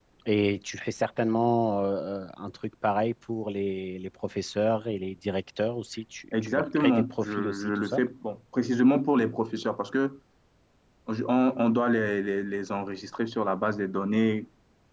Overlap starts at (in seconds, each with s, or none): 6.3 s